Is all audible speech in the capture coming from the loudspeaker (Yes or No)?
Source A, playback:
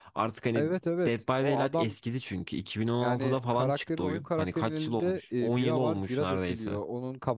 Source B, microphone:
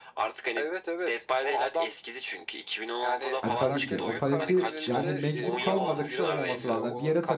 No